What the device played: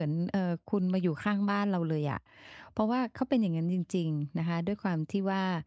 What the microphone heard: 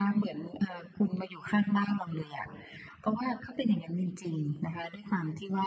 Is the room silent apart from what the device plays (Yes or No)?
Yes